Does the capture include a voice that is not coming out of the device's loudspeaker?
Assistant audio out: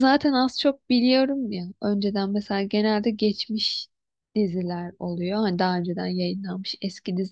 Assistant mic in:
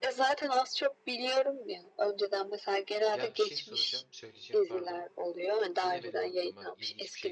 Yes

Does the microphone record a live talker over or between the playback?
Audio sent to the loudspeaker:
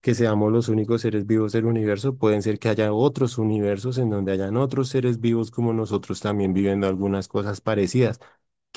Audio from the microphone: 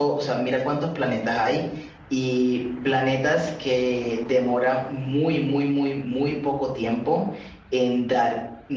Yes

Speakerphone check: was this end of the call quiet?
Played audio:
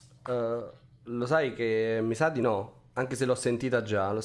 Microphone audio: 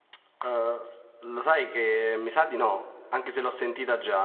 Yes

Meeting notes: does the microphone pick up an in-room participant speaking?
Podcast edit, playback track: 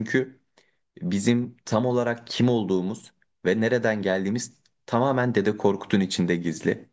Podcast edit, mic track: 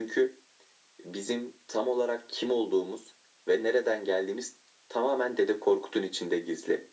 No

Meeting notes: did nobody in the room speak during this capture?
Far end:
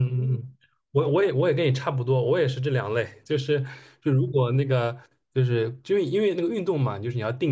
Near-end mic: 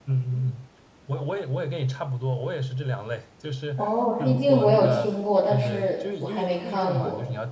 No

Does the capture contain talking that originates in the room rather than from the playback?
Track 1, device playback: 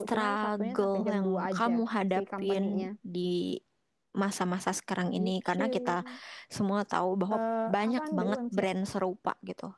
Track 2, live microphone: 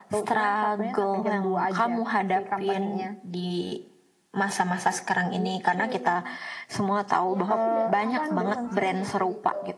Yes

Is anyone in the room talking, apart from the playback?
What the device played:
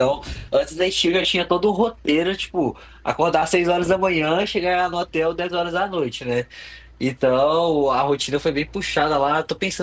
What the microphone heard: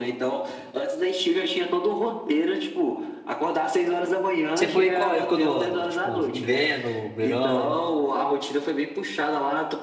Yes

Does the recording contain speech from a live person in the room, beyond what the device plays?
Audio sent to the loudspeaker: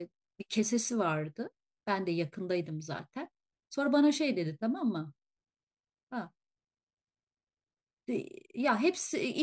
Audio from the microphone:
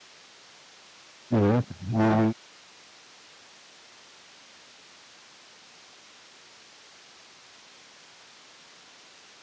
Yes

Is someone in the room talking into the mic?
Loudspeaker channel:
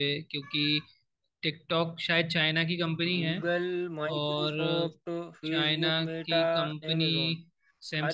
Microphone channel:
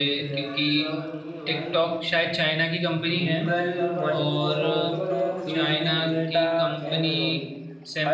Yes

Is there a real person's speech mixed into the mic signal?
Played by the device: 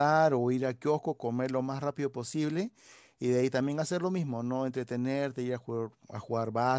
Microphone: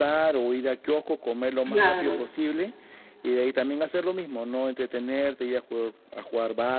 Yes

